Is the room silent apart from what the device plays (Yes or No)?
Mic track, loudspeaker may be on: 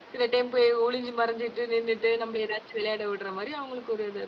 Yes